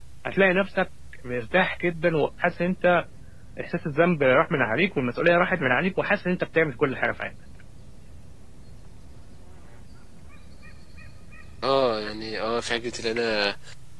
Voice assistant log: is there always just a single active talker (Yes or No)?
Yes